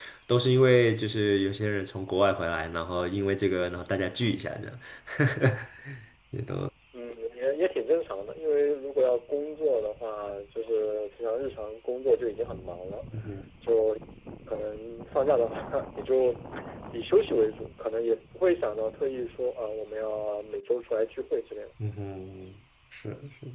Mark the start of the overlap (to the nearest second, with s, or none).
none